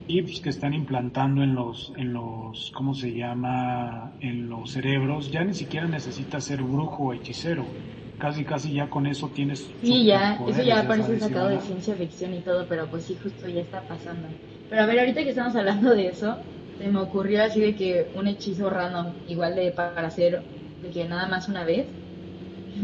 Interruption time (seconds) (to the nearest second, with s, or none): 10 s